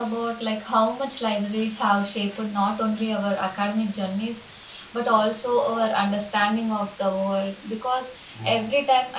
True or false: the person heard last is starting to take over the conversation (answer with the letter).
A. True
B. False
B